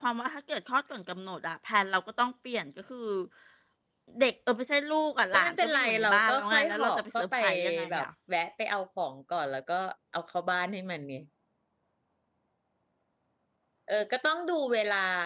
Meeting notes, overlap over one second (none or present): present